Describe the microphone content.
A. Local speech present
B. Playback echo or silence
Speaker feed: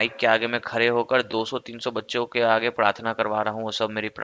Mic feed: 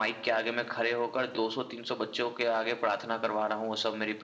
B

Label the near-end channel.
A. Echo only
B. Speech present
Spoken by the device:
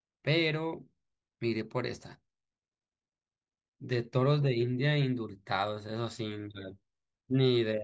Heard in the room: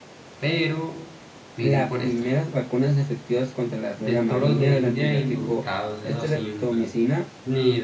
B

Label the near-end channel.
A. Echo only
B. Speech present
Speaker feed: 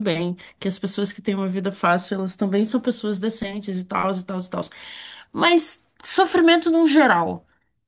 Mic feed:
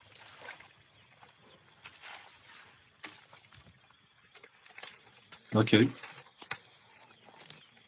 B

